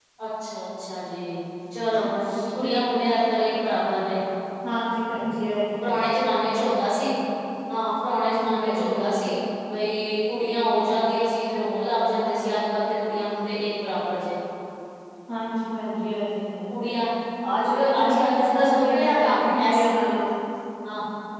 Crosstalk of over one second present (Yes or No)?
Yes